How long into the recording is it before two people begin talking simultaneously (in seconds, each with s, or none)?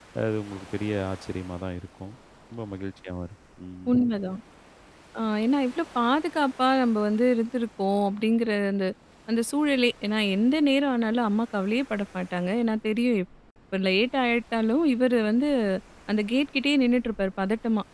none